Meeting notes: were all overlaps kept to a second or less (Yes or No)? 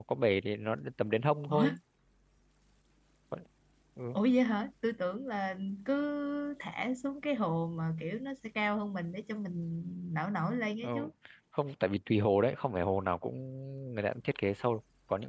Yes